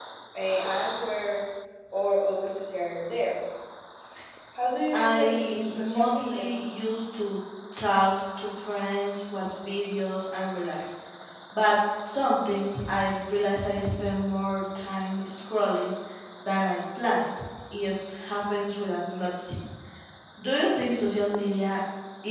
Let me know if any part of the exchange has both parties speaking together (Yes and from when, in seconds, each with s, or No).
Yes, from 4.9 s